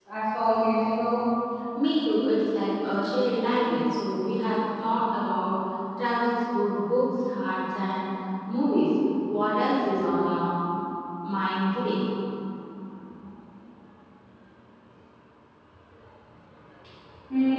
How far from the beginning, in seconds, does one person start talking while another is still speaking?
none

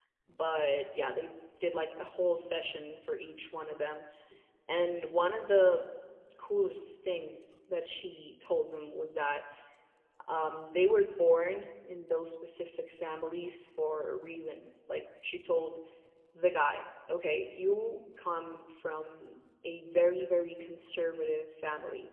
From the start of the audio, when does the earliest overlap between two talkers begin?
none

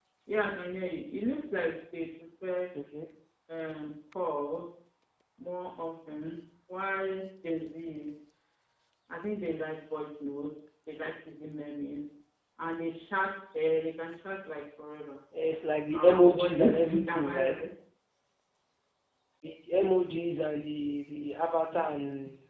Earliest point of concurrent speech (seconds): 15.9 s

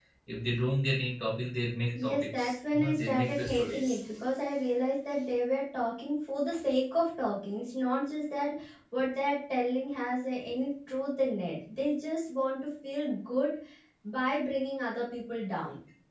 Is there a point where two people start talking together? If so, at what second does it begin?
1.9 s

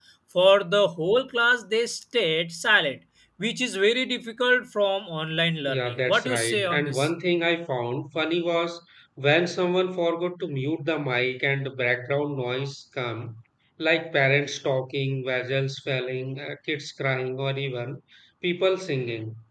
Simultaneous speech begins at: 5.7 s

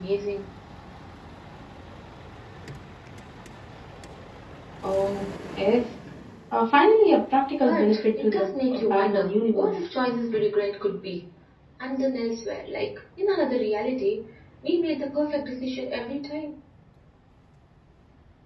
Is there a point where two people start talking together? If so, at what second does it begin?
7.6 s

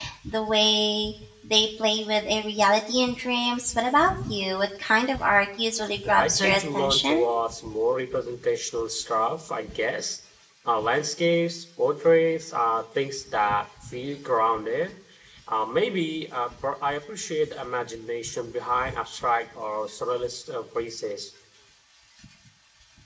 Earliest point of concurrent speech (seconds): 6.0 s

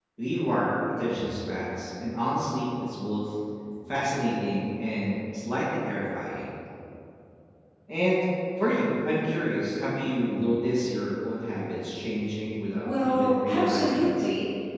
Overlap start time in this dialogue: 12.8 s

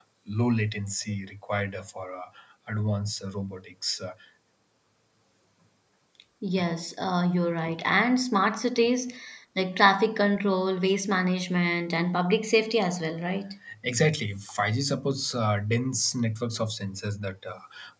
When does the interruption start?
none

